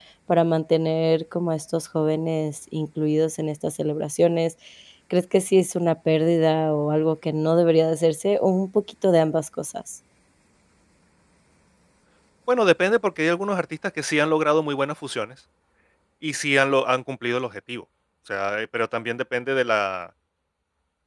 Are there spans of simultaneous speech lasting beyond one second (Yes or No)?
No